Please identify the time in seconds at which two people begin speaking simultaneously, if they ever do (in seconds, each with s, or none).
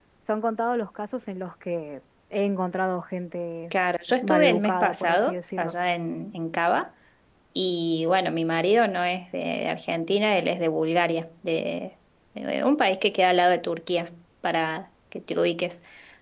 4.2 s